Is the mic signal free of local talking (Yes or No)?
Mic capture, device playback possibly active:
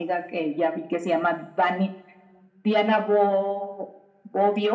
Yes